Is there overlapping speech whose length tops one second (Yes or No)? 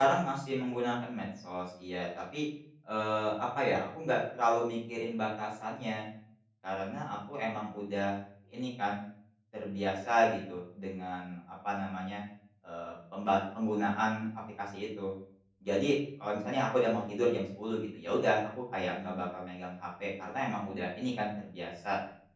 No